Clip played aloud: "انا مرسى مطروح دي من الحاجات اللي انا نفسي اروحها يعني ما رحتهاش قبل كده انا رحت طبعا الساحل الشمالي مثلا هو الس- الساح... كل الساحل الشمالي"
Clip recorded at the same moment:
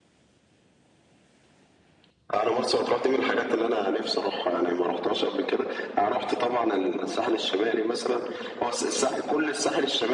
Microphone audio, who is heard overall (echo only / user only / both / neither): echo only